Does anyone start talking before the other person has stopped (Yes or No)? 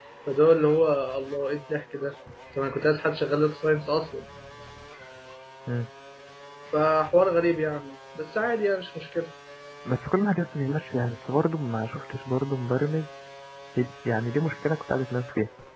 No